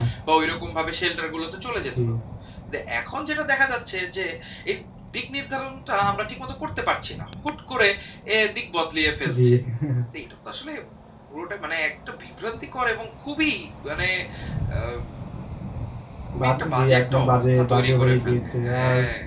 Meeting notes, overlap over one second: present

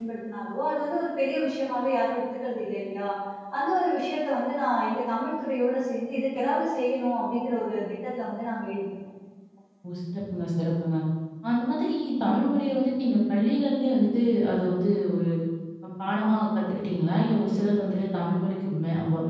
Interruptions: none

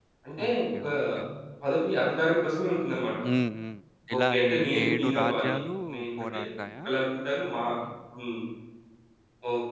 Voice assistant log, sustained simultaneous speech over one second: present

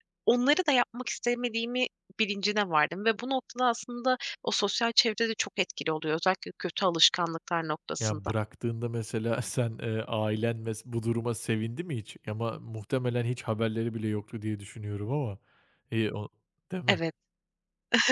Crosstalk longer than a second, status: none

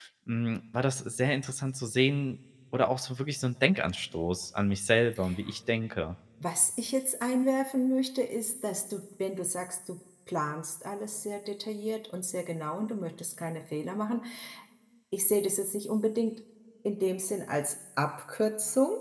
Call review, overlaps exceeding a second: none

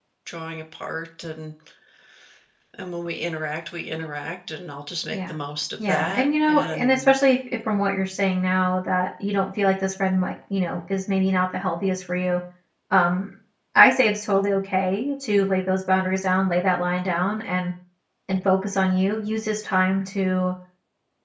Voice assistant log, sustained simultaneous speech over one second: present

